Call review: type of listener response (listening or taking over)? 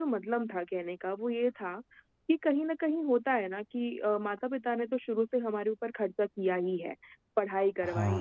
listening